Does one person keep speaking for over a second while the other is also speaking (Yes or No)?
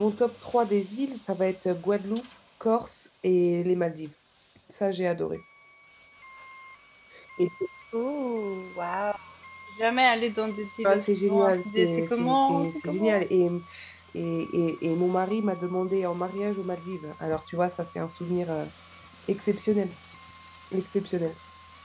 Yes